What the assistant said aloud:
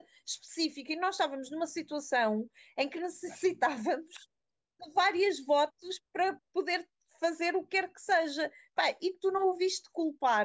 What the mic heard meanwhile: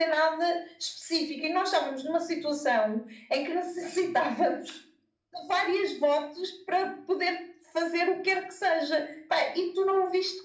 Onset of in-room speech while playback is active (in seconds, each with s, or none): none